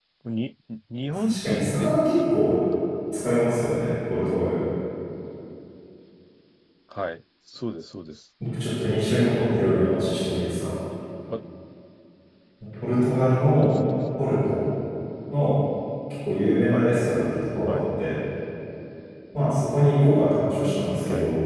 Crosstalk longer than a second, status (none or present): present